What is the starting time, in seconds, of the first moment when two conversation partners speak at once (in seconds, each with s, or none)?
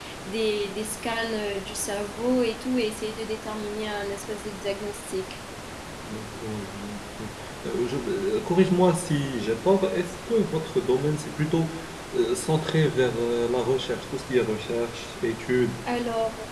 none